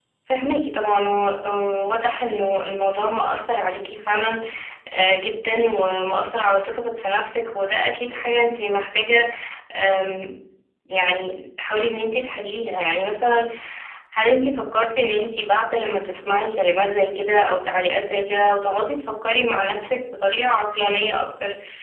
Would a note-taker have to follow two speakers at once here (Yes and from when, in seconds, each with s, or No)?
No